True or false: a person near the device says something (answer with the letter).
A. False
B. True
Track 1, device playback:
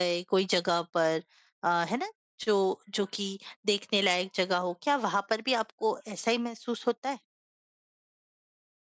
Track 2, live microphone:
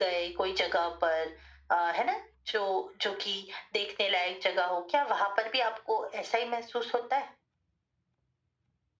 A